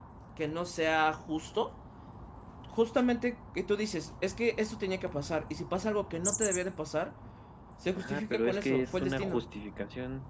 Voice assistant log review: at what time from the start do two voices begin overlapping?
8.0 s

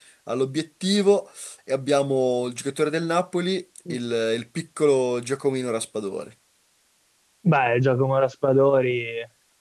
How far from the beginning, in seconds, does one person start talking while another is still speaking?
none

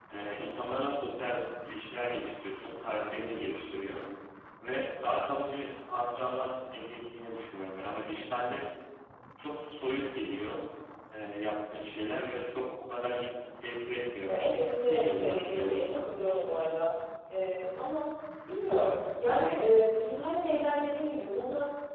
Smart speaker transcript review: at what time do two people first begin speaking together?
14.3 s

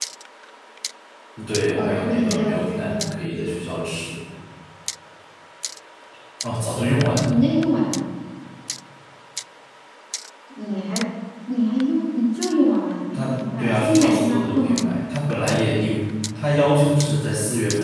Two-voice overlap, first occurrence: 1.8 s

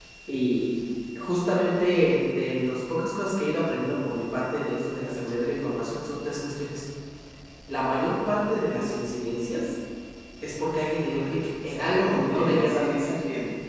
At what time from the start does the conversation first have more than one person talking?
11.6 s

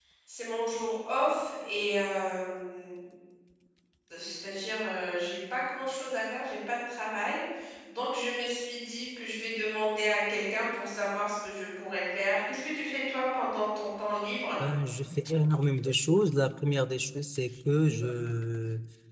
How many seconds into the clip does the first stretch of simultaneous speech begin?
none

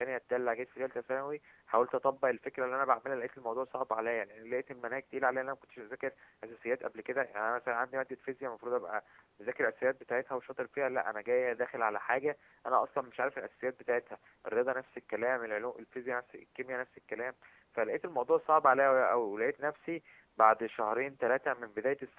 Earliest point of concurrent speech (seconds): none

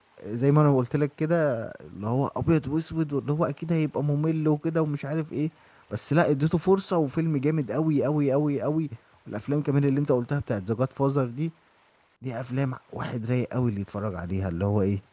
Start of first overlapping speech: none

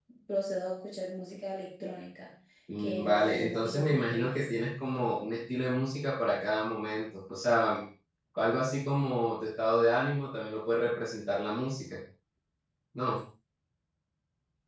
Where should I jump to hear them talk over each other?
2.8 s

